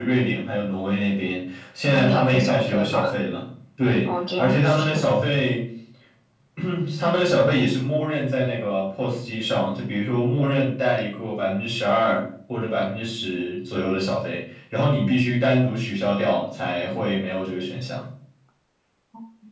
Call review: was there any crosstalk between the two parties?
Yes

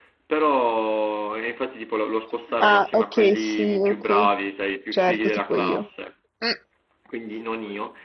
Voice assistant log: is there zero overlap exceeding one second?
No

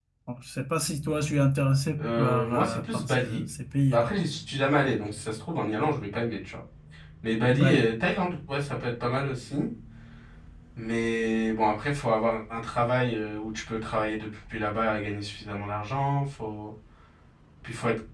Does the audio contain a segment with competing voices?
Yes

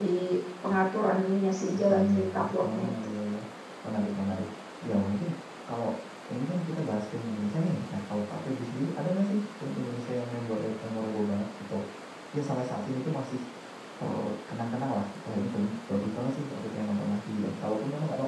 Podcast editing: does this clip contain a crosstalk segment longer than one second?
Yes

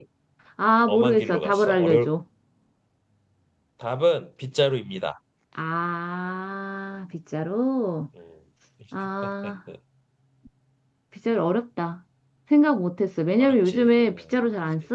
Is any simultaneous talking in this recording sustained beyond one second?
Yes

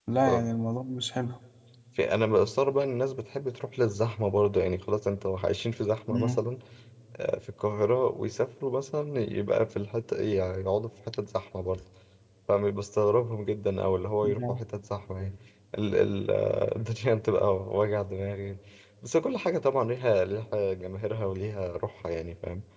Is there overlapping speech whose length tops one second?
No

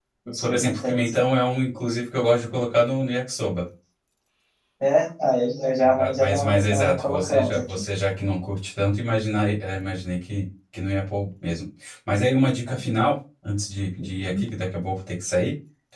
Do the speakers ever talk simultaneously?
Yes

